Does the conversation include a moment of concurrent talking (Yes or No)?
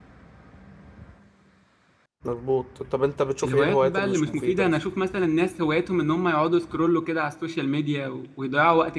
Yes